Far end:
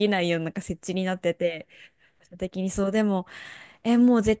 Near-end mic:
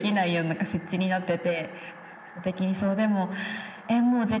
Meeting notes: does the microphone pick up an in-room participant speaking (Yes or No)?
No